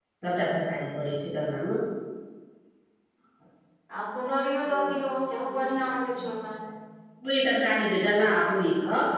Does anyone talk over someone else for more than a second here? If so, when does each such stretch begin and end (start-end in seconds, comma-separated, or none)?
none